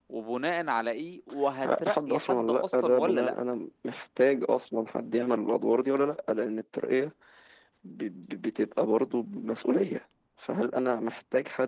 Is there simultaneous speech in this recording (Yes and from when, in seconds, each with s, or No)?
Yes, from 1.6 s